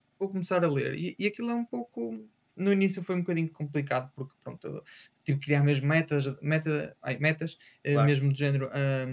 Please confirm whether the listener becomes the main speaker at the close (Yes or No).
No